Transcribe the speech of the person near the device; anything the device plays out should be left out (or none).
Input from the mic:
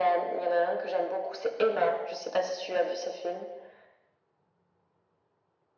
none